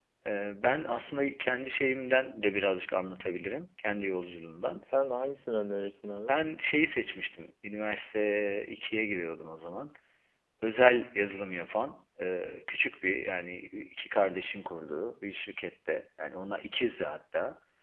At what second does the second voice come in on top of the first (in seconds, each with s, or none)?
none